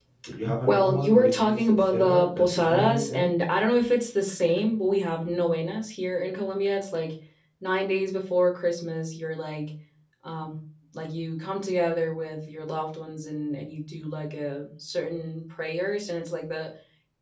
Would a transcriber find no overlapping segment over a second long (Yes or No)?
No